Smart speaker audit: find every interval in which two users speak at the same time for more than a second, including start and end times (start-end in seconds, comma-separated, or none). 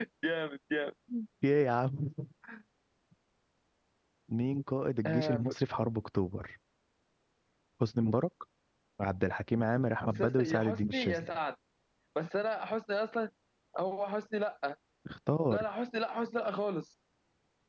10.1-11.3